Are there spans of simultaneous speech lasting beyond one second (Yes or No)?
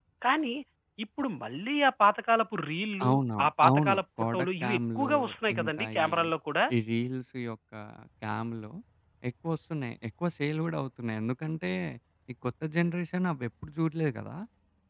Yes